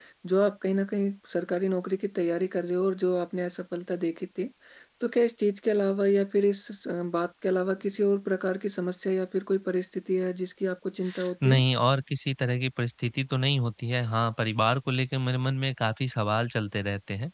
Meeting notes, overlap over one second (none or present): none